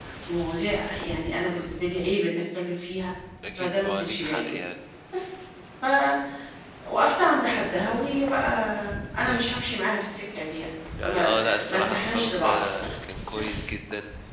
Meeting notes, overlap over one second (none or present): present